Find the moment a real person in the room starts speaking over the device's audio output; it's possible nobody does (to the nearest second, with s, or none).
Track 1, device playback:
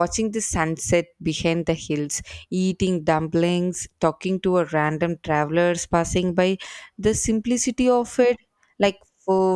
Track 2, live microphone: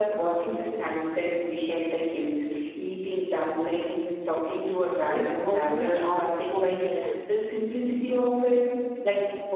5 s